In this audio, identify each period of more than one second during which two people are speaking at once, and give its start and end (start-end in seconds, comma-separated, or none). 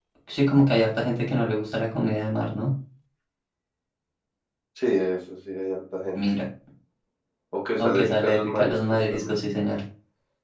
7.8-9.4